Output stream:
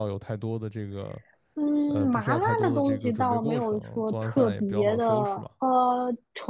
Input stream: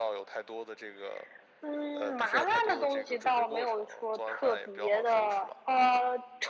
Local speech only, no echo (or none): none